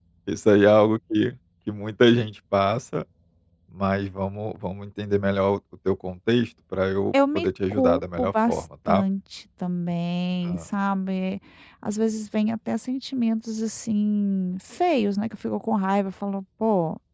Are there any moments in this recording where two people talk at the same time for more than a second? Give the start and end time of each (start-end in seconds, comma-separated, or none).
7.3-9.0